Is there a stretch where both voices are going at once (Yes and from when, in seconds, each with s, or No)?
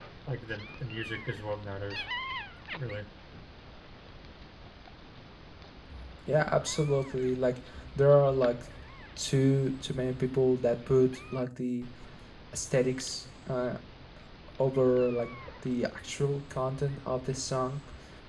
No